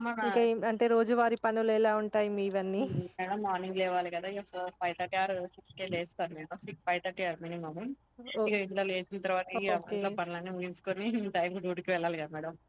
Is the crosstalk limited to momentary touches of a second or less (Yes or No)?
Yes